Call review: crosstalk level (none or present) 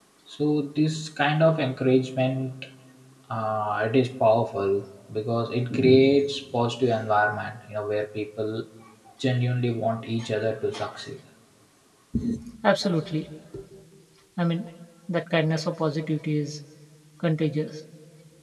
none